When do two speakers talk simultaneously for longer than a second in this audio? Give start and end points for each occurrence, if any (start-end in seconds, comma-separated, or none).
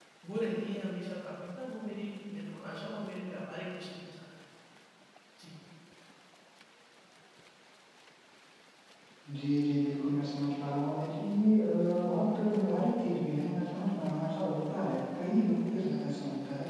none